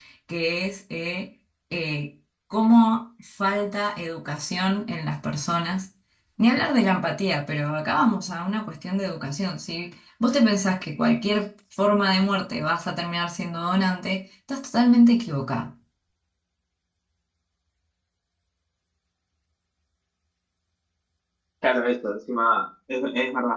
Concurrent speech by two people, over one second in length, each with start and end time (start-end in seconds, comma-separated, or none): none